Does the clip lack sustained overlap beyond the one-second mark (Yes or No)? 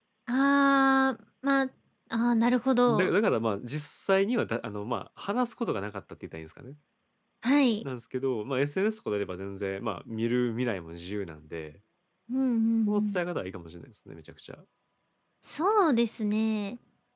Yes